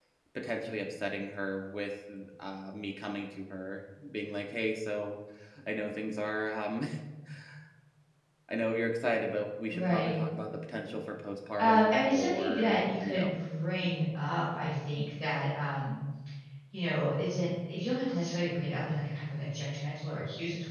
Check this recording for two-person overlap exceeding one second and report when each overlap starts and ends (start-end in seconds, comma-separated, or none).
11.6-13.4